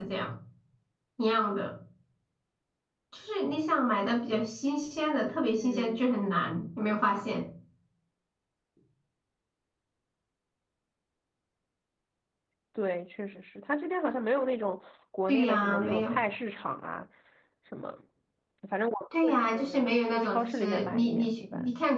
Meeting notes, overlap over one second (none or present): present